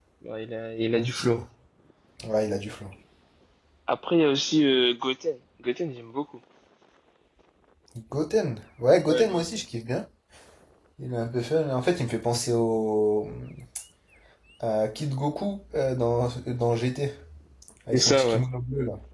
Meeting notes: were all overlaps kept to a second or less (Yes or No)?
Yes